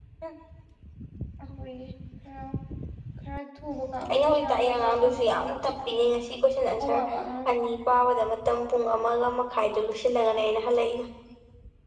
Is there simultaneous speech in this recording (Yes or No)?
Yes